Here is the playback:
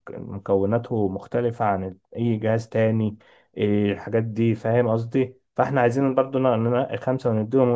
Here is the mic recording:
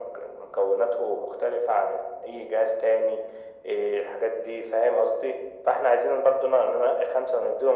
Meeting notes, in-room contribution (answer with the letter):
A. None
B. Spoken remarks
A